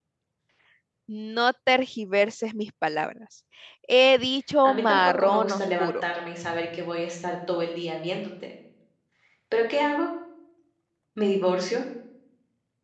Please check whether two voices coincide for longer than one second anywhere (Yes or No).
Yes